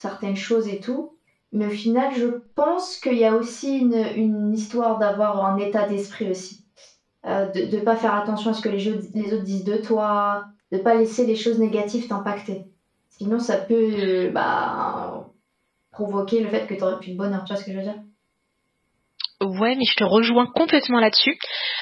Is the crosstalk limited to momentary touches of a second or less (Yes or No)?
Yes